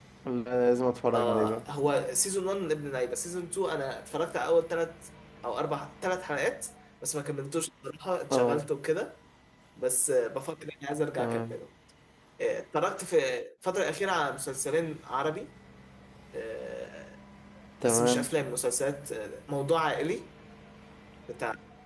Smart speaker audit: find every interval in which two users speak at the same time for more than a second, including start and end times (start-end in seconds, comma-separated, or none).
none